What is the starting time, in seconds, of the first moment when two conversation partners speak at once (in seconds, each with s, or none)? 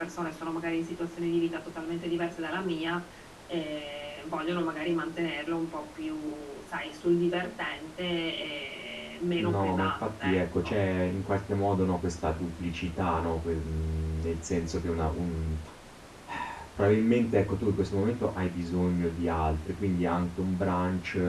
9.4 s